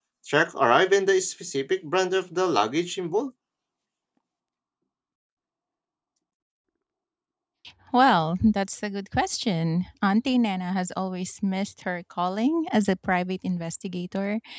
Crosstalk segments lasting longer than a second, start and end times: none

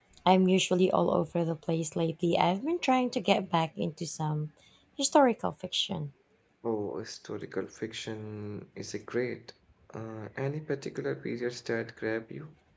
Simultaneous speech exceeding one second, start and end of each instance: none

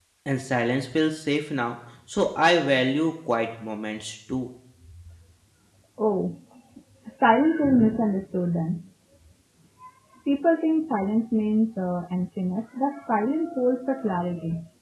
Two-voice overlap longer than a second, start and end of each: none

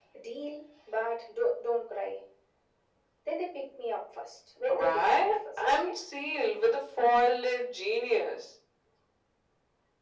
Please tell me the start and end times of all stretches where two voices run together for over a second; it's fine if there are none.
4.7-5.9

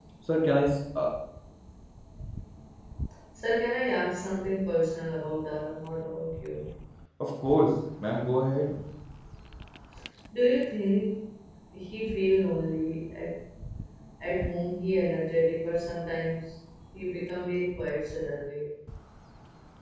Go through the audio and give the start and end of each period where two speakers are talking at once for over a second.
none

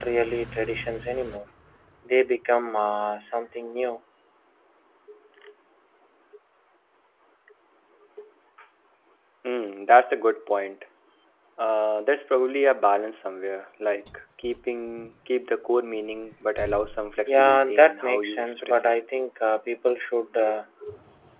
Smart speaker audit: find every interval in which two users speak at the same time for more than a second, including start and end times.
17.3-18.9

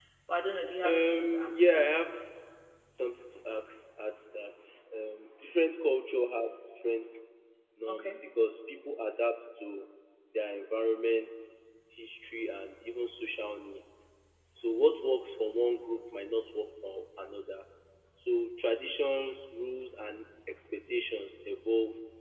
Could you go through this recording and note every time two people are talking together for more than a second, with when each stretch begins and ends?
0.8-2.1

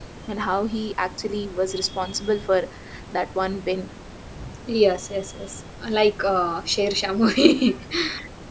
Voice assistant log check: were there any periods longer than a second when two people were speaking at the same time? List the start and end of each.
none

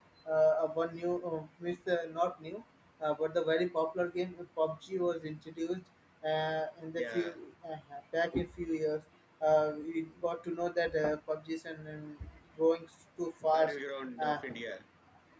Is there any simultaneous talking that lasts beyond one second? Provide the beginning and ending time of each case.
none

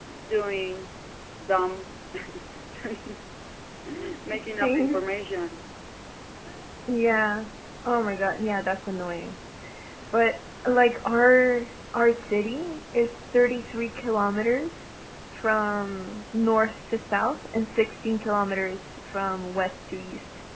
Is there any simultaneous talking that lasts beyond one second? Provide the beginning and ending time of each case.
none

